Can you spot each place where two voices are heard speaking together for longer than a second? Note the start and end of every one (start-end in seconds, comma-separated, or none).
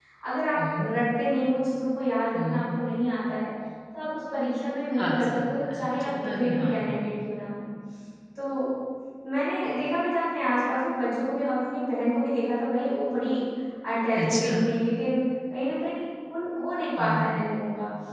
4.9-7.0